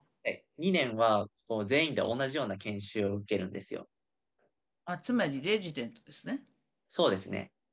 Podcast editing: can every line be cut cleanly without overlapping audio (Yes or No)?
Yes